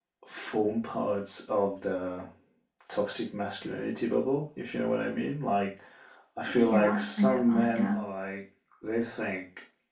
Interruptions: present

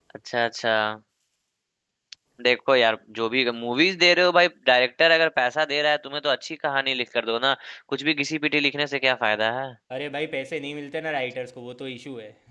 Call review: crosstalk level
none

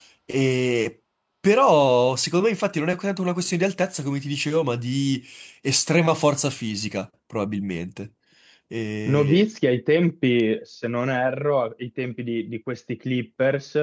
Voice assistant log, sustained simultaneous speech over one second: none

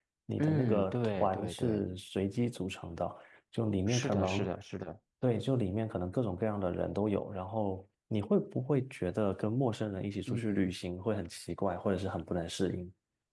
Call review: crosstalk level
present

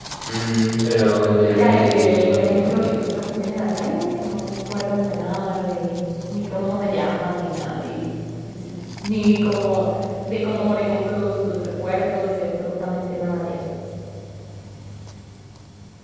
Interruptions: present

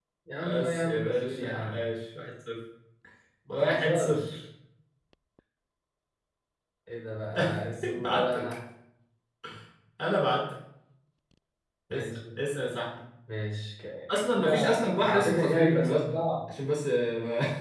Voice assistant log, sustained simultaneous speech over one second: present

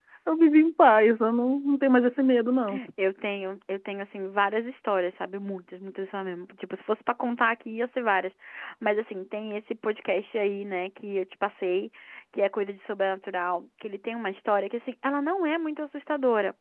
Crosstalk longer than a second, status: none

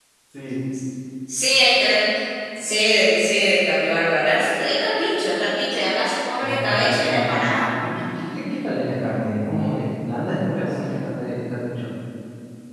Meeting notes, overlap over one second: present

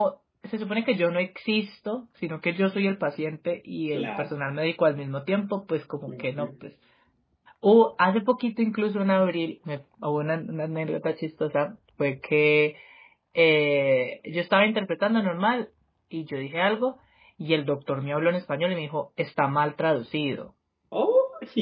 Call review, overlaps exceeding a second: none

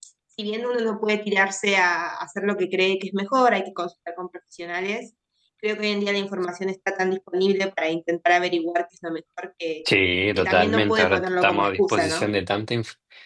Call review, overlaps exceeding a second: present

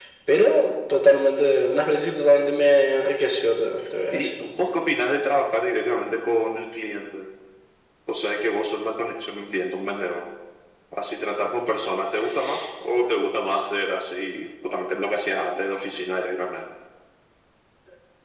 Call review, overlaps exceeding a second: none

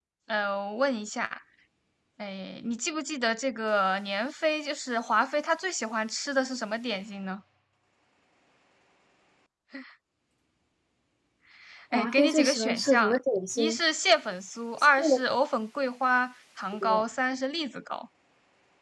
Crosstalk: present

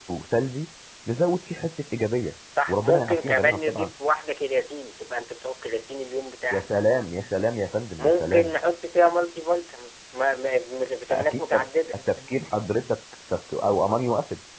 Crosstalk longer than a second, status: present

